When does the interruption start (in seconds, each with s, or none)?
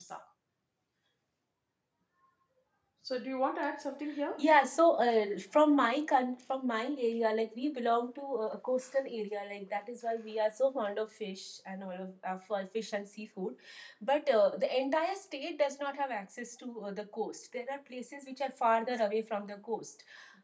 none